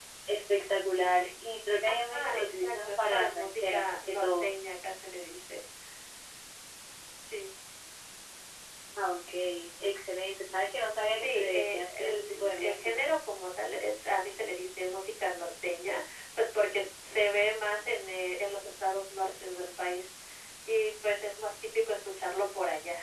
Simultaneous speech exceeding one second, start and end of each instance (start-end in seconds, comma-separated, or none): 2.1-4.5, 11.1-13.0